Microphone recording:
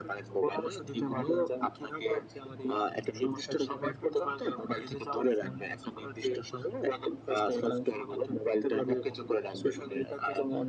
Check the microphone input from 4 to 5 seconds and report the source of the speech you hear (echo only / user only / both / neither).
echo only